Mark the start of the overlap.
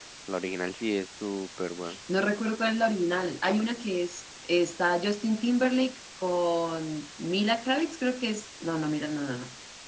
none

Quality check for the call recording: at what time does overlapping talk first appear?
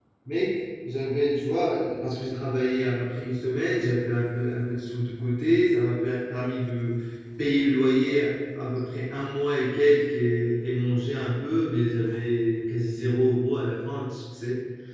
none

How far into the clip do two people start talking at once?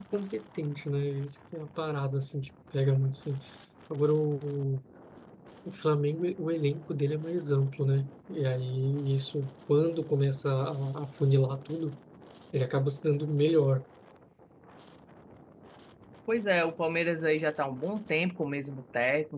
none

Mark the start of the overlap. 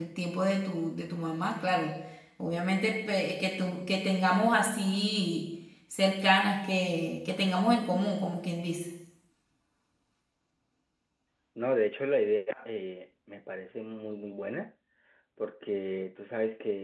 none

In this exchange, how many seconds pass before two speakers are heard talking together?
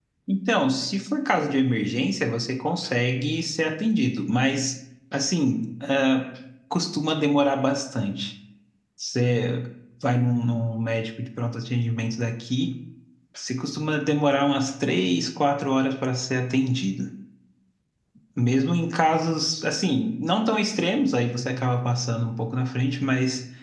none

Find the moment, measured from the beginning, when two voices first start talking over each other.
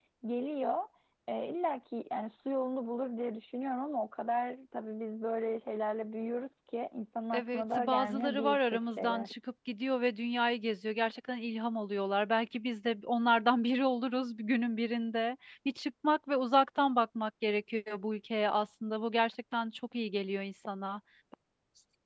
7.3 s

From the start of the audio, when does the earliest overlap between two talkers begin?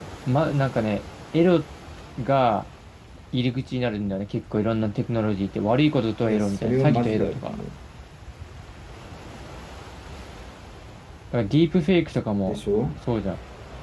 6.2 s

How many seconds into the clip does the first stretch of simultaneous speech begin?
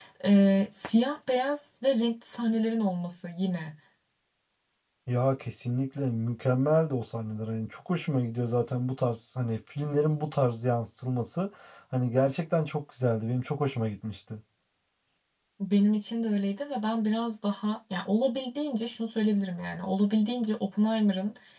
none

